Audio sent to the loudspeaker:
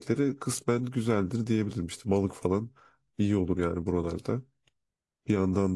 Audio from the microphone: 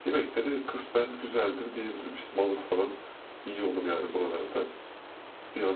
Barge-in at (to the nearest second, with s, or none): none